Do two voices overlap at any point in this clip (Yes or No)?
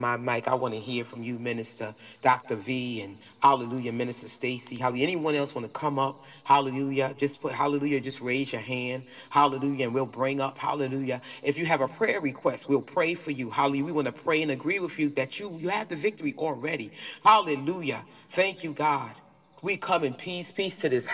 No